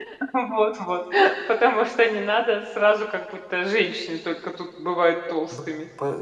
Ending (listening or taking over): taking over